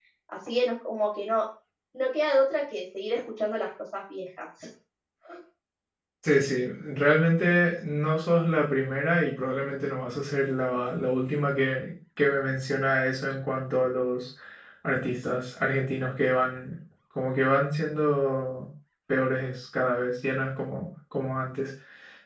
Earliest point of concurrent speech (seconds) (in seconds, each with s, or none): none